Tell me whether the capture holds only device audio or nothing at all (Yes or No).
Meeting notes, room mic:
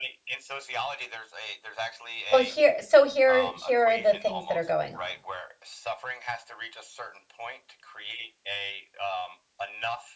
No